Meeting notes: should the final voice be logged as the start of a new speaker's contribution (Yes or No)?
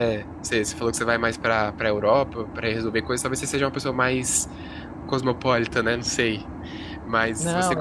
Yes